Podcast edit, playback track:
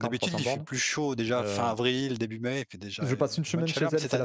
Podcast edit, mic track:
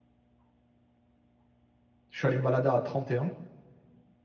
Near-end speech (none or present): present